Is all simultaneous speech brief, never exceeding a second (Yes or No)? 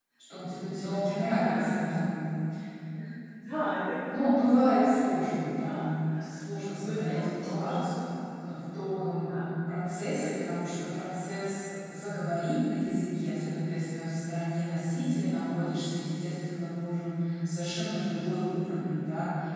No